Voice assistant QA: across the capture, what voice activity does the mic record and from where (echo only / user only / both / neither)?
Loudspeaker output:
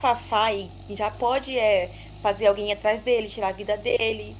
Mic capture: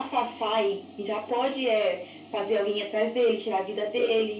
echo only